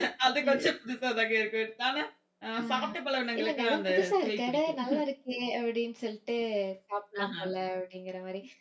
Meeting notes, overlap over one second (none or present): present